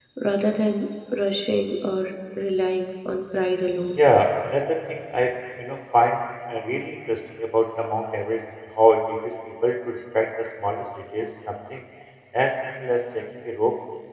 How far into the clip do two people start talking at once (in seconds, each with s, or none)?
none